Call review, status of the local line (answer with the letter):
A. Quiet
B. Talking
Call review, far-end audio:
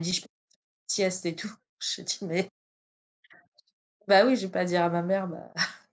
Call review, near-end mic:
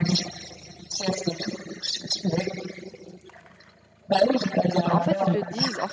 B